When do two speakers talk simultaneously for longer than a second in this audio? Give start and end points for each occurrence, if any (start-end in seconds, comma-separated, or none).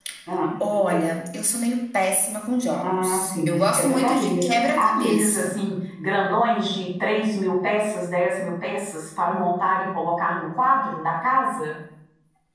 2.8-5.6